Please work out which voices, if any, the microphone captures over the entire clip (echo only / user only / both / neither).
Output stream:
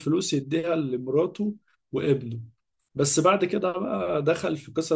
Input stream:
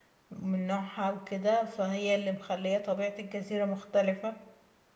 user only